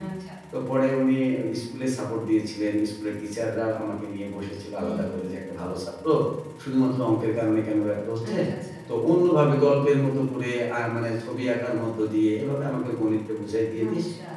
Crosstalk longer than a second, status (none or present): none